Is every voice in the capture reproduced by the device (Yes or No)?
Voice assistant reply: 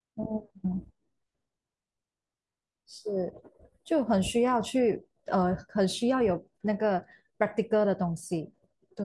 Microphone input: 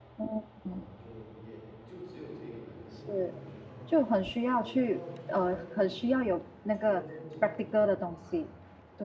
No